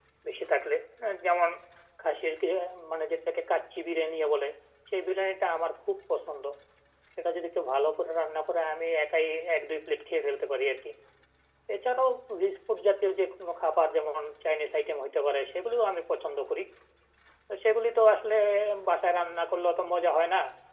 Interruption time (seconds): none

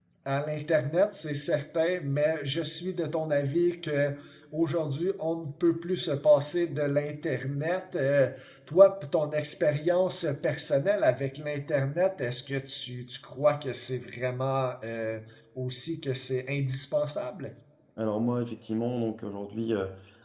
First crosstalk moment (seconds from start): none

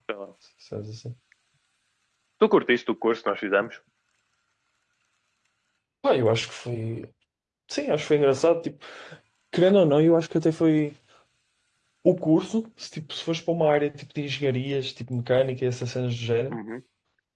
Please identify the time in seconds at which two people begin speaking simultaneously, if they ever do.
none

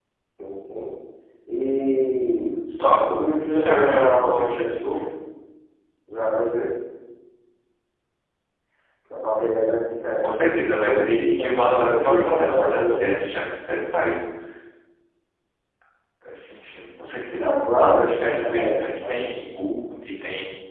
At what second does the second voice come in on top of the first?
3.2 s

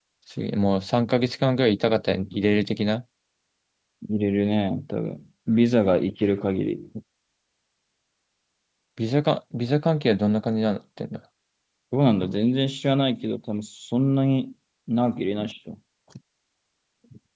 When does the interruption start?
none

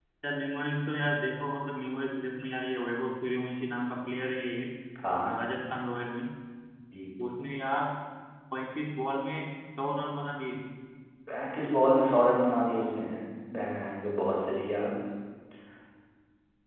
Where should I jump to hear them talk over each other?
none

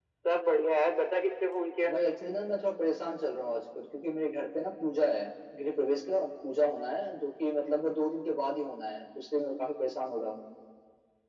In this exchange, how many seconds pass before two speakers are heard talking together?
none

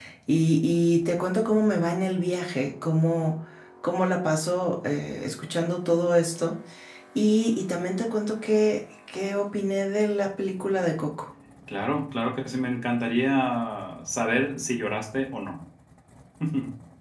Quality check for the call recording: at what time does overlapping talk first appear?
none

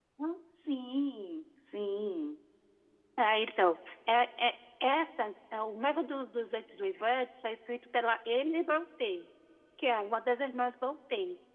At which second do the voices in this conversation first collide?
none

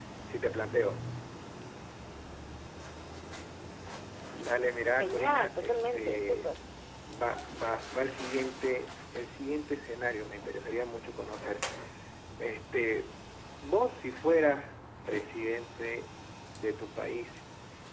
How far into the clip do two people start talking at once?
5.0 s

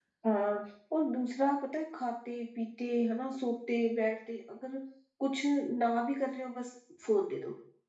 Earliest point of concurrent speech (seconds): none

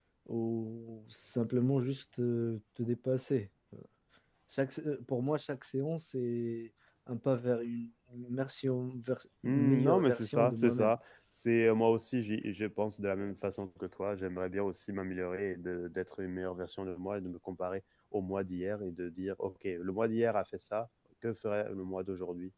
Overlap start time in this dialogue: 9.4 s

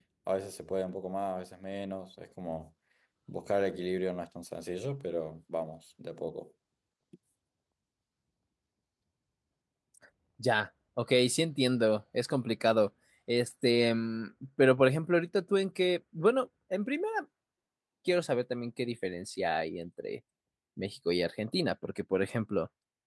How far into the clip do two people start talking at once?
none

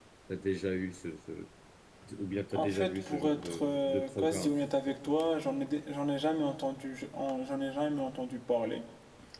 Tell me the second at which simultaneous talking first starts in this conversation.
2.5 s

